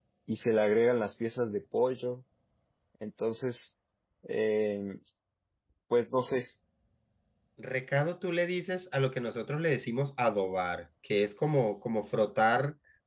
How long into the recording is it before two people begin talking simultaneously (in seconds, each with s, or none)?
none